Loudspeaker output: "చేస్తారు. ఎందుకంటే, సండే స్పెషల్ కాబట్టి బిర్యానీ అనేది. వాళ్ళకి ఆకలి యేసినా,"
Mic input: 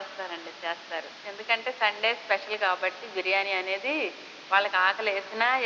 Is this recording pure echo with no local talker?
Yes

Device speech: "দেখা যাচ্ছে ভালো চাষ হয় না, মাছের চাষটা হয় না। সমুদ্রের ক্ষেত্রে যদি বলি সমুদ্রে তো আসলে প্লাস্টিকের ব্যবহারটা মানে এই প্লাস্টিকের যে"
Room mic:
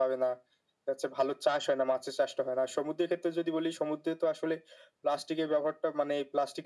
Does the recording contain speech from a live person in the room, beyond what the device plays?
No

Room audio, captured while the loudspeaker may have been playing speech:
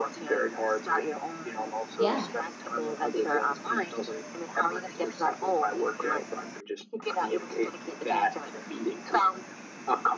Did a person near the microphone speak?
Yes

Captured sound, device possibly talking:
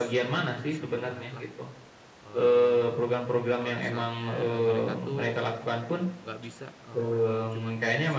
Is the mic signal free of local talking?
No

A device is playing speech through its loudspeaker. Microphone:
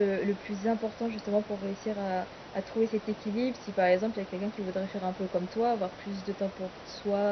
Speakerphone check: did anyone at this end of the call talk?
Yes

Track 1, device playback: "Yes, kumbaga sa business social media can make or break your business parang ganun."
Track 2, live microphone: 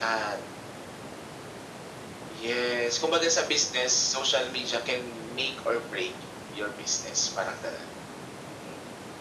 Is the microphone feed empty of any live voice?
Yes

